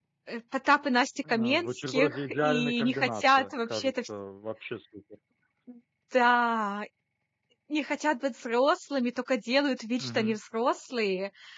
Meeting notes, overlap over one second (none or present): present